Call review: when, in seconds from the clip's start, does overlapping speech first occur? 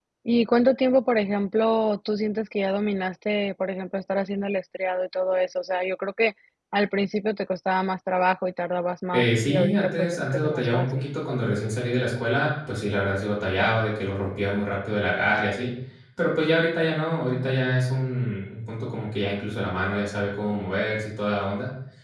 9.1 s

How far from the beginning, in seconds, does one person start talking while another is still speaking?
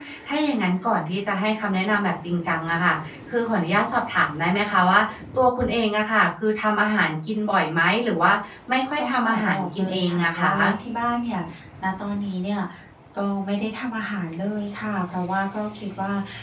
9.0 s

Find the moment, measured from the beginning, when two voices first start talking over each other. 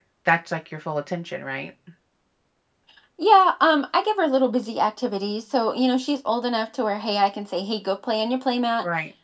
none

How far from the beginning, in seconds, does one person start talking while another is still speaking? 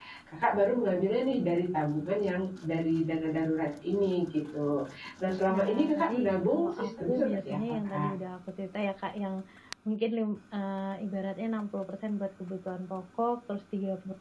5.5 s

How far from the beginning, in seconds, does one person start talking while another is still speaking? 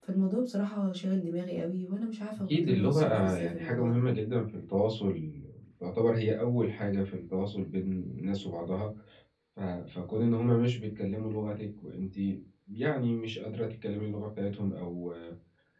2.5 s

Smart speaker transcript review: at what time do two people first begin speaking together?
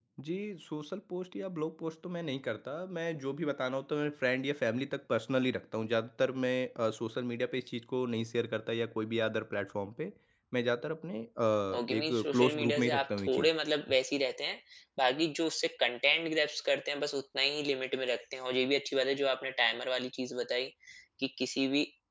11.7 s

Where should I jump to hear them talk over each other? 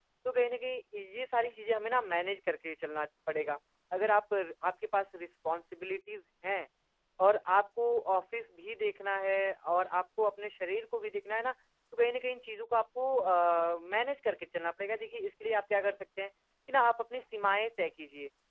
none

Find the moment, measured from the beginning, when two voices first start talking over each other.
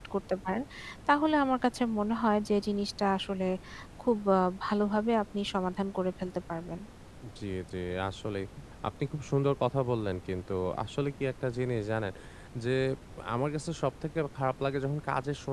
none

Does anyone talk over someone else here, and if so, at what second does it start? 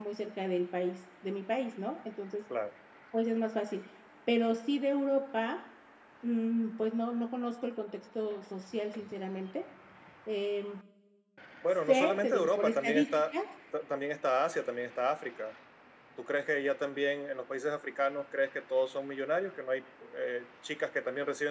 11.9 s

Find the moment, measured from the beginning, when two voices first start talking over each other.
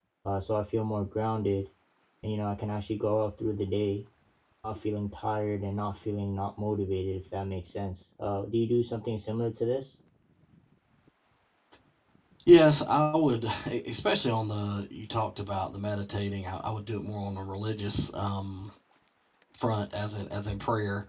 none

